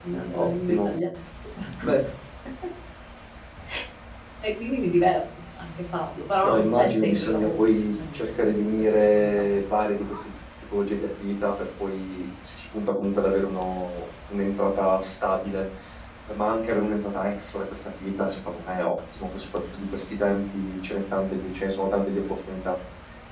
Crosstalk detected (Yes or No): Yes